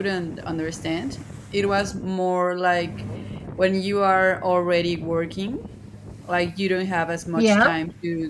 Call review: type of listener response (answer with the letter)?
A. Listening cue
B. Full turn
A